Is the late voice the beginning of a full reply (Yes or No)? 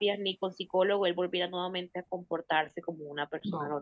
Yes